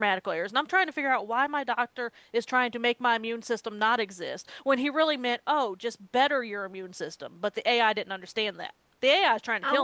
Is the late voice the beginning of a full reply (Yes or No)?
Yes